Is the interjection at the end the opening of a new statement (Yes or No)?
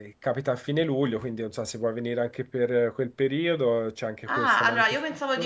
Yes